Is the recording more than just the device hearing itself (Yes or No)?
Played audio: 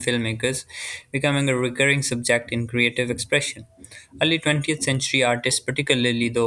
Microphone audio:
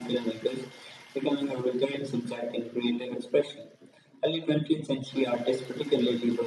No